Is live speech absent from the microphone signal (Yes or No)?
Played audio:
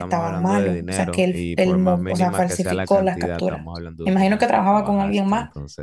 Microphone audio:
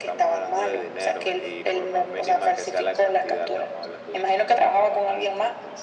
Yes